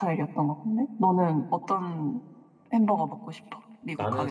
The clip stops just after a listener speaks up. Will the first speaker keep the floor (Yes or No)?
No